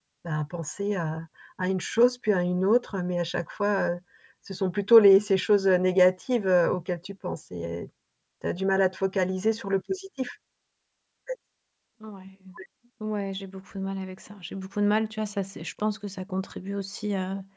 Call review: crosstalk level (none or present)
none